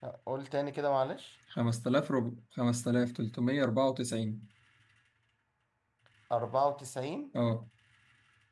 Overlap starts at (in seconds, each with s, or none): none